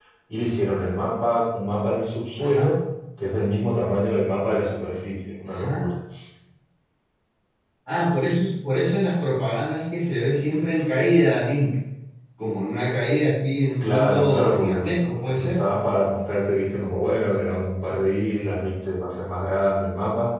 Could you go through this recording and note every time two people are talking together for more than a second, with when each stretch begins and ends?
13.8-15.6

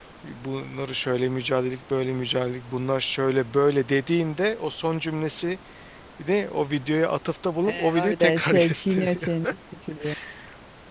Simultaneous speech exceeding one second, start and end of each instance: 7.7-9.3

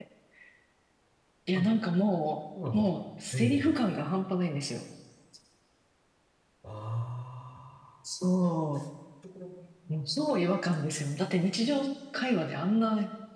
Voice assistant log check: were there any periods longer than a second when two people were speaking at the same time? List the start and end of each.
none

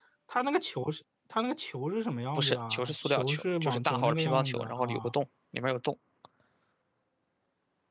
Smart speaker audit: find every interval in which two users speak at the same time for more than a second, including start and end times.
2.4-5.1

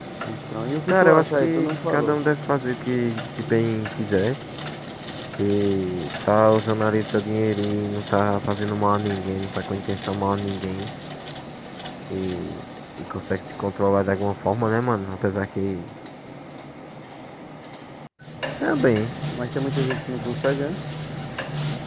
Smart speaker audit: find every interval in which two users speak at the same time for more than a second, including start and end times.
0.9-2.2

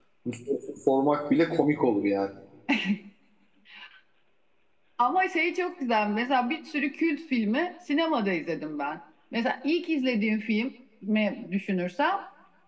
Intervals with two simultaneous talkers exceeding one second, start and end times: none

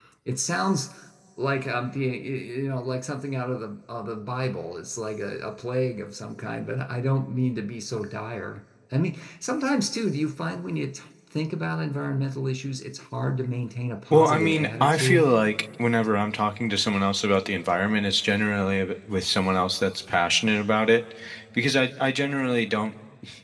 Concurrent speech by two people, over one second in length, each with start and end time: 14.1-15.3

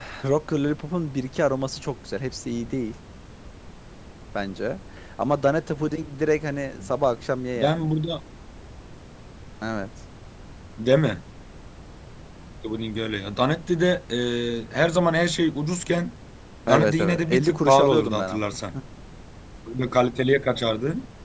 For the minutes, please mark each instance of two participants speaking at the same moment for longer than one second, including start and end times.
16.7-18.4

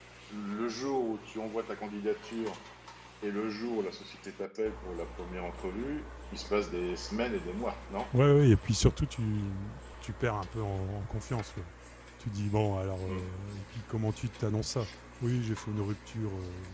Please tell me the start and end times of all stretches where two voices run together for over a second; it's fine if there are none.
none

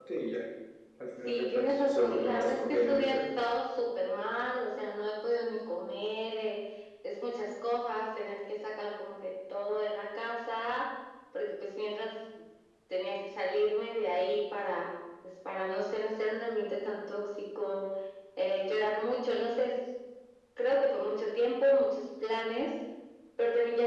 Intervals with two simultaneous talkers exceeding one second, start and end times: 1.2-3.2

